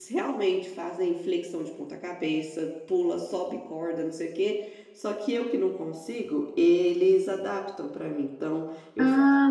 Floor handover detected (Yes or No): No